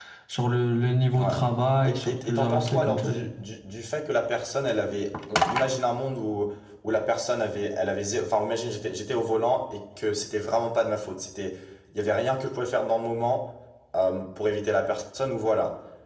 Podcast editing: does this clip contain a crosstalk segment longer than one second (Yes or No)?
Yes